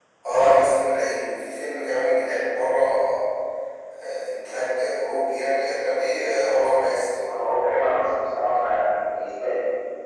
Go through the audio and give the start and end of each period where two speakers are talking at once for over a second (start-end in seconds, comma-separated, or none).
none